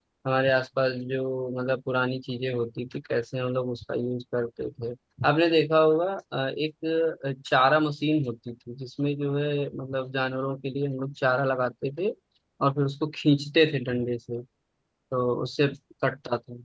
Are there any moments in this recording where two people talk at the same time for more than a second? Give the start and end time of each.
none

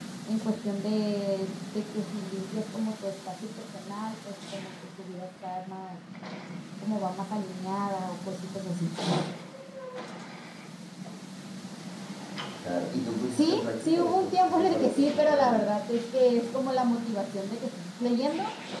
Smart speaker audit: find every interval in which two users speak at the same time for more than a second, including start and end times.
13.3-15.6

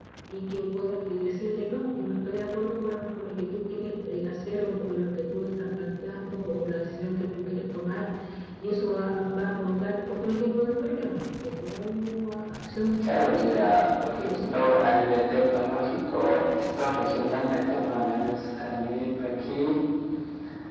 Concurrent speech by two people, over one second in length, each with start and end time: 13.0-15.0

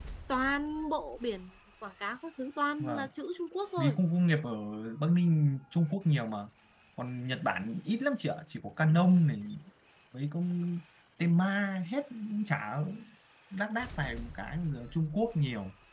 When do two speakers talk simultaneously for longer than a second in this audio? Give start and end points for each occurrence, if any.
none

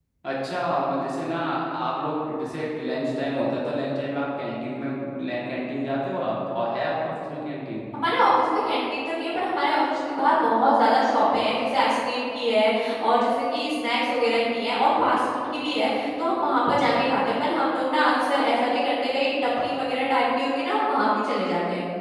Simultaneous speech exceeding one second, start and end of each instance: none

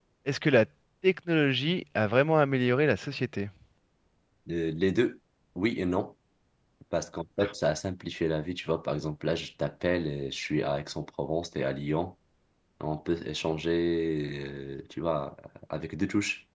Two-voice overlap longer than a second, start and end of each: none

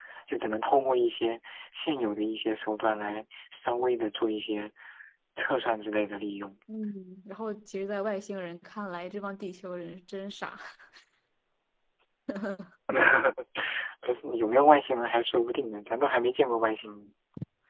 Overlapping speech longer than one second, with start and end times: none

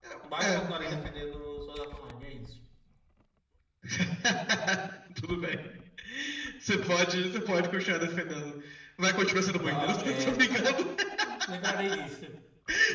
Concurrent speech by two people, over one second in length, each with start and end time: 9.6-10.8

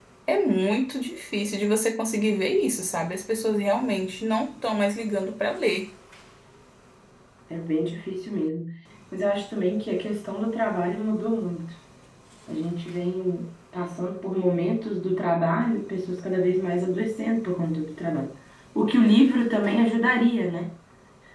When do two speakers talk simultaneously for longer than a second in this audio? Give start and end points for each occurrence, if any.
none

